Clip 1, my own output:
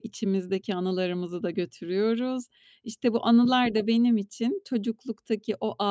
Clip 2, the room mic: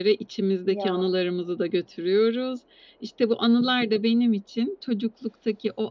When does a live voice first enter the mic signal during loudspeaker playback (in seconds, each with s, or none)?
0.6 s